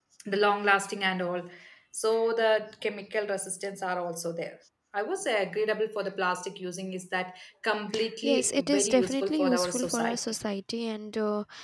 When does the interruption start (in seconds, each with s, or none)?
8.2 s